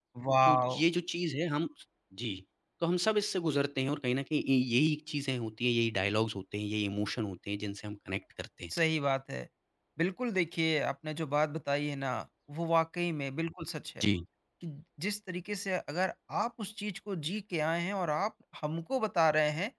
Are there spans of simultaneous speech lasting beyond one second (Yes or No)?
No